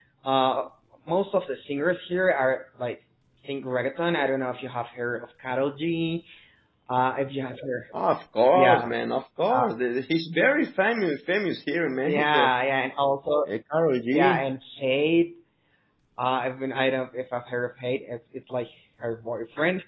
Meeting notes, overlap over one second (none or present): none